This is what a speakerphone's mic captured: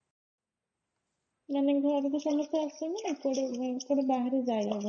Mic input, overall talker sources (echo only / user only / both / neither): user only